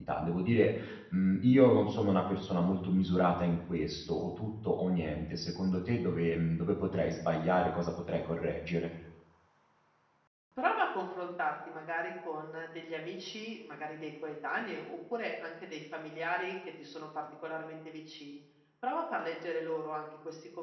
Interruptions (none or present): none